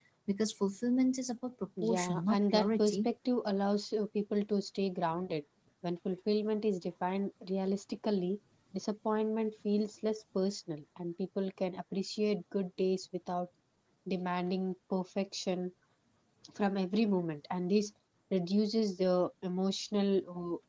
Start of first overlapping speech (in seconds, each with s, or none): 1.8 s